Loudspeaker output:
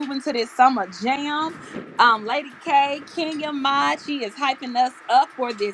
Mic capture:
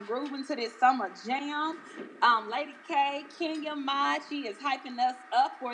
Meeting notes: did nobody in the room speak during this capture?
Yes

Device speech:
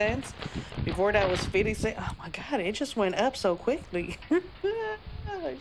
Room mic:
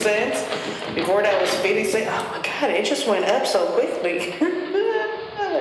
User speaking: No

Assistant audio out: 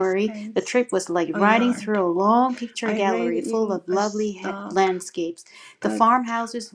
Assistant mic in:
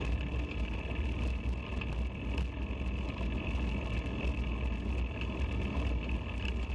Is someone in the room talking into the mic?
No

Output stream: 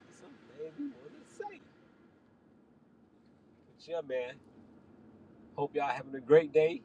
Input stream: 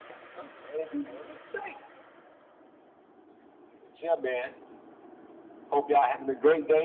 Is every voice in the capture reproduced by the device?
Yes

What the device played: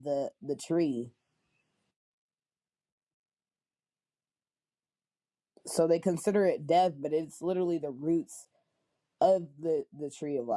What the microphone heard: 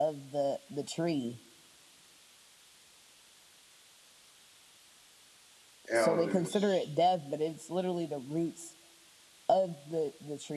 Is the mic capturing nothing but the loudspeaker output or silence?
No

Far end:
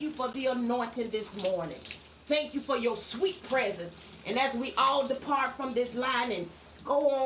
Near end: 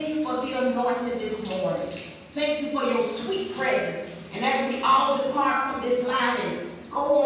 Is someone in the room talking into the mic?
No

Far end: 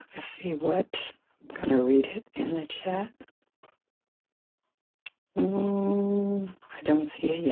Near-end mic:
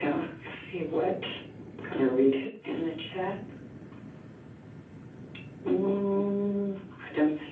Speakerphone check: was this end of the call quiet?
Yes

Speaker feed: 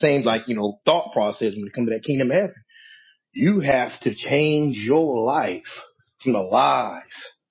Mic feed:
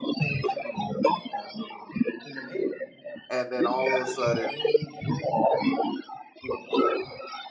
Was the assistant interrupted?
Yes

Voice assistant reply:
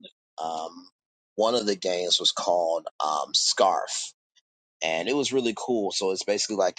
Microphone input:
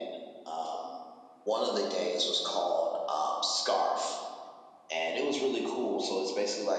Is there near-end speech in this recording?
No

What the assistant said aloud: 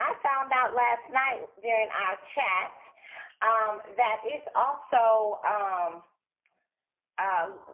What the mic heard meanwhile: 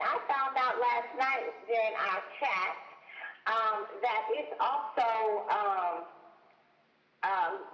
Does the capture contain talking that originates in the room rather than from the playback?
No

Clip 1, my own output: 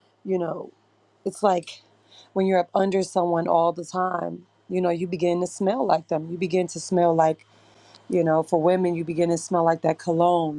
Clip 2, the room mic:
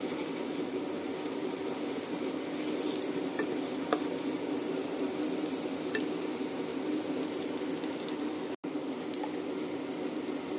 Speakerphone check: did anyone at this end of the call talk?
No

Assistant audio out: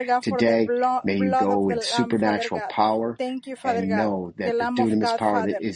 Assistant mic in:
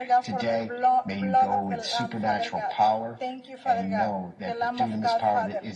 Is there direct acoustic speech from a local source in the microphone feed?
No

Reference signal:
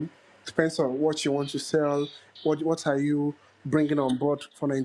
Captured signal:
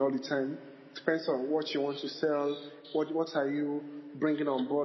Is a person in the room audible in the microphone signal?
No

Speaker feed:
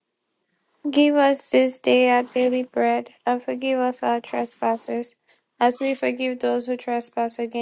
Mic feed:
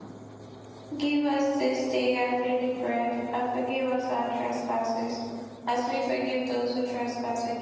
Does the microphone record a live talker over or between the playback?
No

